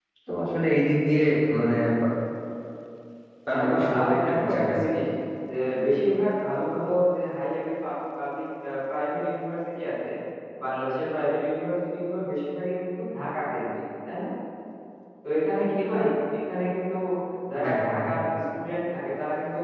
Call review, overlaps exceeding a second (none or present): present